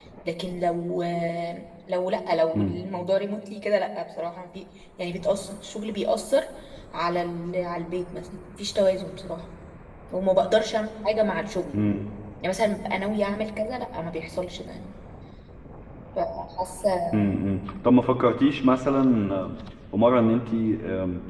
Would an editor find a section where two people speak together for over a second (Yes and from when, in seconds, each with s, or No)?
No